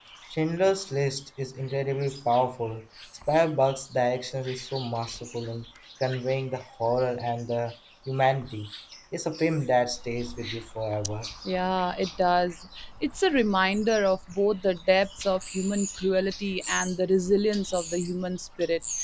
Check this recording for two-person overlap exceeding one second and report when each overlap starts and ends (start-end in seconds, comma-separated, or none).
none